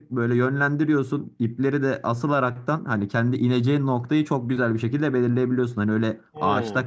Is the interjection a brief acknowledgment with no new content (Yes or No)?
Yes